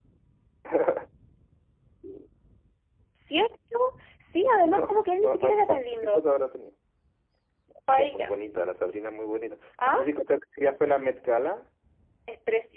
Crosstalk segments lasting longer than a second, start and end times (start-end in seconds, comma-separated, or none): 4.5-6.2